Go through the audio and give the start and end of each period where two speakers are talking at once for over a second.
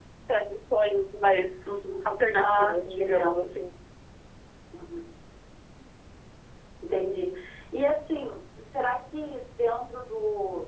2.0-3.4

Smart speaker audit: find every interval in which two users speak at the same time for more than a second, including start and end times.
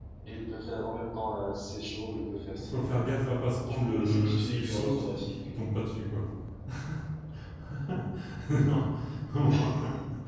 3.7-5.4

